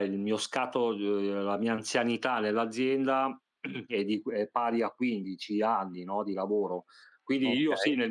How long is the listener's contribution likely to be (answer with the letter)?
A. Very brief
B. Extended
A